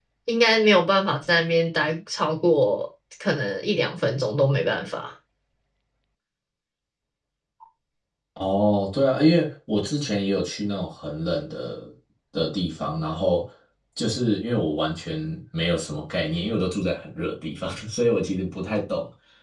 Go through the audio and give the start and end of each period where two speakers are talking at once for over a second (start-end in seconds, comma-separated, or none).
none